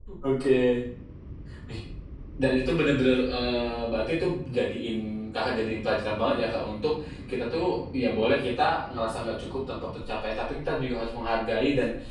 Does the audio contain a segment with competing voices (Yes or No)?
No